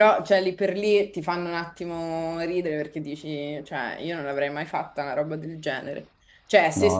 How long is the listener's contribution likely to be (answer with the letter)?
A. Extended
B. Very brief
B